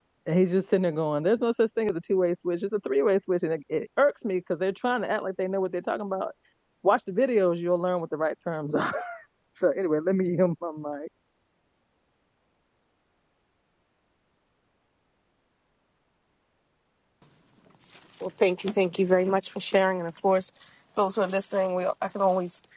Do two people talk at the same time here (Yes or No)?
No